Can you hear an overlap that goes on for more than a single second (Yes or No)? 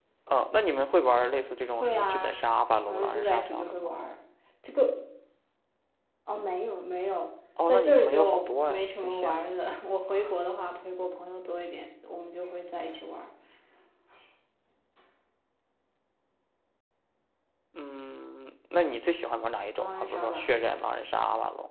Yes